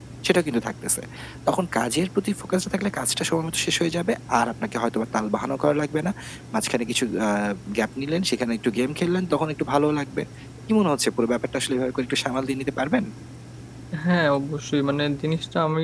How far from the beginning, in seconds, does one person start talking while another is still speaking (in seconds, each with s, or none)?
none